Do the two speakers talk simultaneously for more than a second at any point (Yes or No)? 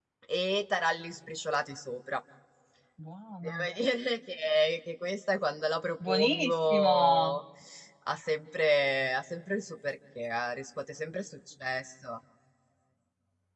Yes